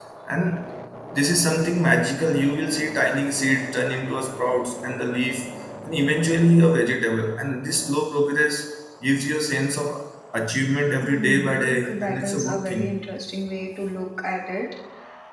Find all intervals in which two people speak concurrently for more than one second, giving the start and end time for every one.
11.0-12.9

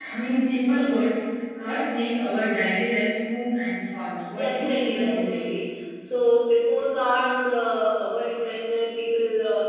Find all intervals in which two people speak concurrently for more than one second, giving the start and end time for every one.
4.3-5.6

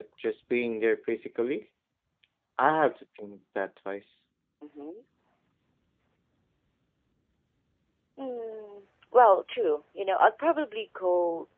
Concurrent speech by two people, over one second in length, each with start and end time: none

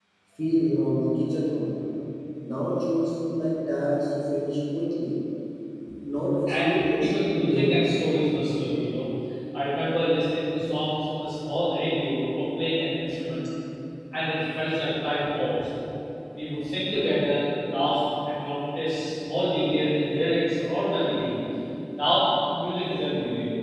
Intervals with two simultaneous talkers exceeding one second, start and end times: 6.5-8.0

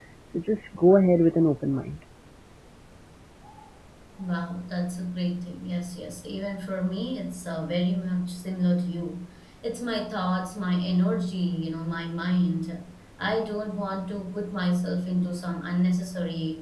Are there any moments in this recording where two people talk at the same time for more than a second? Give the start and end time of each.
none

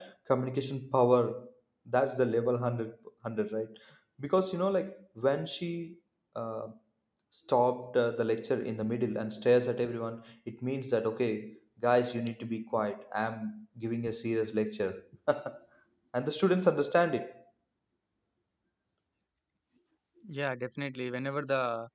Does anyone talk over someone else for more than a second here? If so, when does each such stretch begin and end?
none

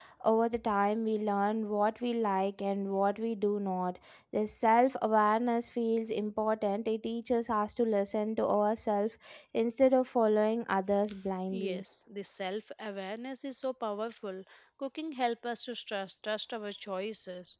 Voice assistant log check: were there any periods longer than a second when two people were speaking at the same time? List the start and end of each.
none

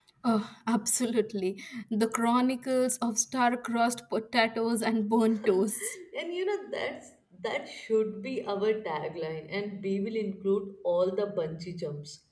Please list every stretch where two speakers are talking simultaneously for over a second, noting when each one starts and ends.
none

